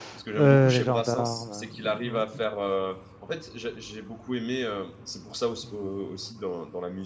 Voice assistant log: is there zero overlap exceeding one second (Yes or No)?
No